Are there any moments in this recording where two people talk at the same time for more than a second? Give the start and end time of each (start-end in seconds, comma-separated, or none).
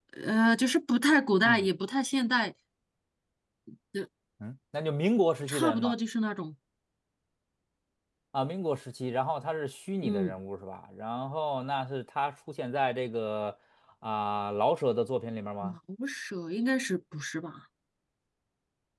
none